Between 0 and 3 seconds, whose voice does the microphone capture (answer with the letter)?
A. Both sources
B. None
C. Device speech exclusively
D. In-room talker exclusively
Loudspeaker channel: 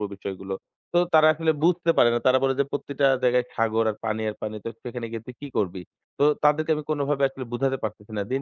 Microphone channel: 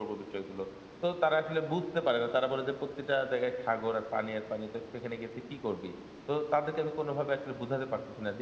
C